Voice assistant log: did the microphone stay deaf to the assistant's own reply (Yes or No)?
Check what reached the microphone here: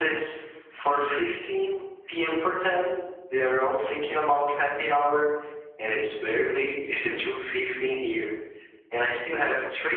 No